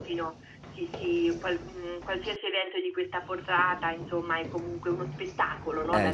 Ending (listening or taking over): taking over